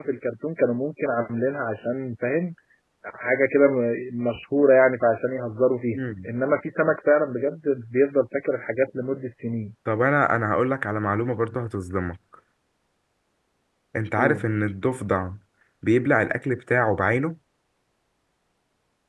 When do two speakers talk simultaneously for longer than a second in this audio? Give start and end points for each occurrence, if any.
none

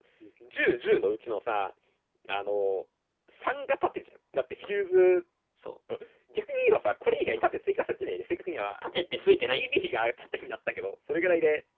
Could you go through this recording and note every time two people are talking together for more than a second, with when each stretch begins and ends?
none

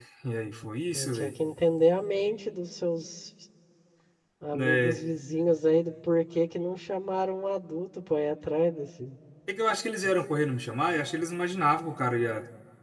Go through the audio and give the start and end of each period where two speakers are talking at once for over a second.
none

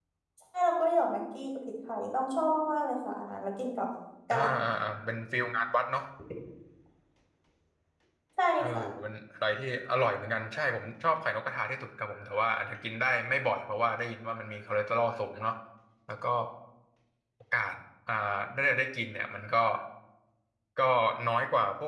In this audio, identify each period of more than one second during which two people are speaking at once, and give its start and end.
none

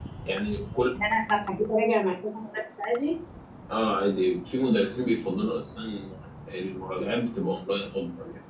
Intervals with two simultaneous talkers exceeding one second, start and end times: none

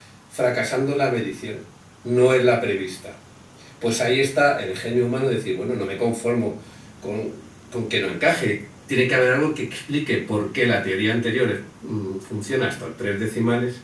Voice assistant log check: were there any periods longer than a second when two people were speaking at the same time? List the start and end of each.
none

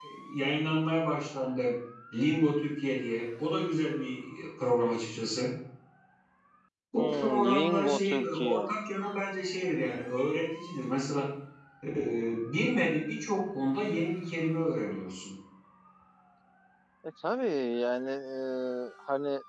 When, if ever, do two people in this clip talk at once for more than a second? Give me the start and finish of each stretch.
7.0-8.7

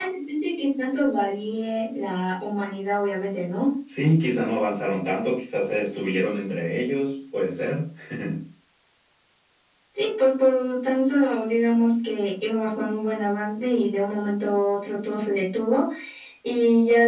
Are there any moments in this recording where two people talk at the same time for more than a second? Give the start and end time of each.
none

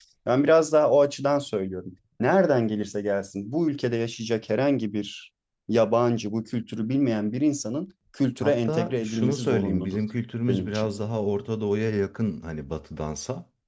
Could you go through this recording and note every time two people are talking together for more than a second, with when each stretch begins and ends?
8.4-10.0

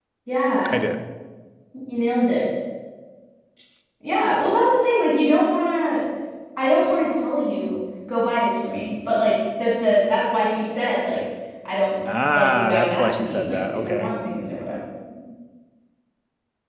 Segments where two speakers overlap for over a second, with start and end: 12.3-14.1

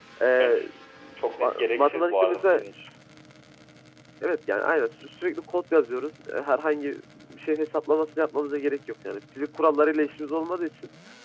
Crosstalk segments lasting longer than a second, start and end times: 1.4-2.6

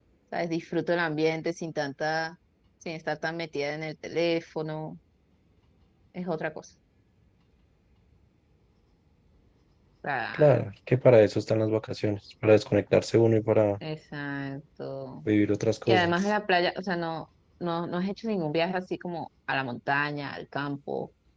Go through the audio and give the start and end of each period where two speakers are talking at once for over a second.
none

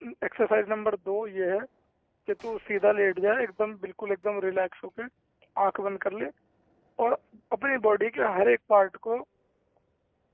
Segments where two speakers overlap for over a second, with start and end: none

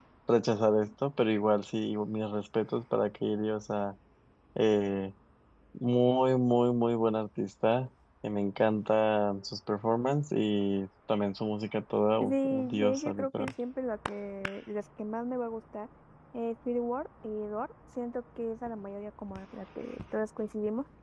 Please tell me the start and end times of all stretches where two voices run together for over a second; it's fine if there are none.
12.2-13.5

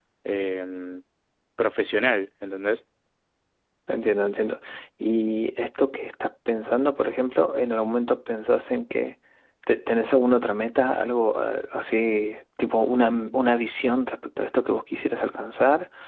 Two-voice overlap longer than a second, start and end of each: none

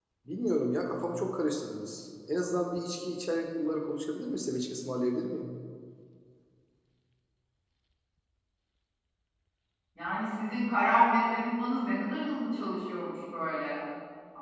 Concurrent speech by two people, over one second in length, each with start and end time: none

